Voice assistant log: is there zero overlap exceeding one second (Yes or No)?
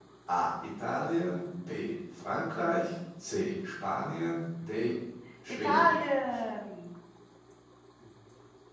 Yes